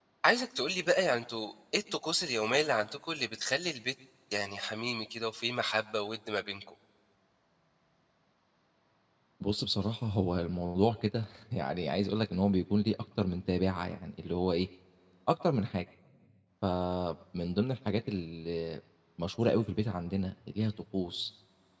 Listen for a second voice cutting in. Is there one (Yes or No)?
No